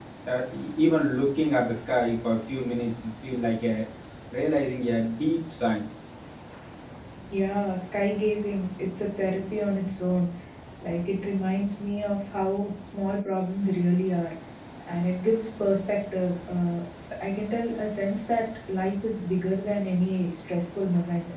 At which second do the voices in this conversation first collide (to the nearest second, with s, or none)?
none